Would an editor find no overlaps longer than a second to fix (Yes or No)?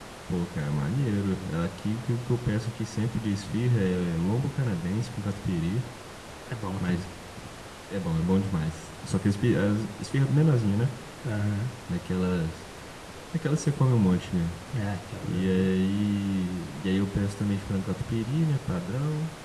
Yes